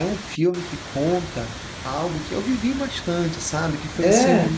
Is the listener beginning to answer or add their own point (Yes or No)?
No